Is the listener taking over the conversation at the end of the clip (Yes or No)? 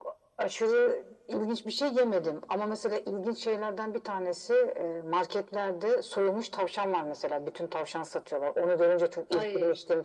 No